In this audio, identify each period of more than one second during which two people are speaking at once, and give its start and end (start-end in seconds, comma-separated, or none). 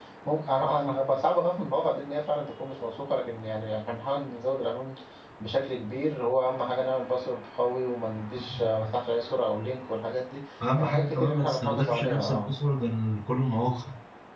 10.8-12.5